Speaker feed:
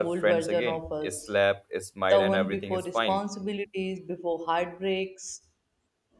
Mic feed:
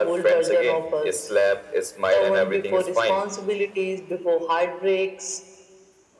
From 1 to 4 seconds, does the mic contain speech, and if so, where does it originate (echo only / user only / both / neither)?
echo only